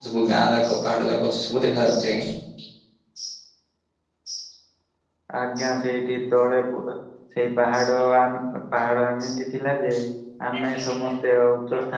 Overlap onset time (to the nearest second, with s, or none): none